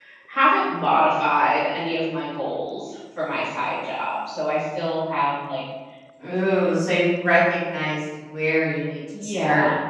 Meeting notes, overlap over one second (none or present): none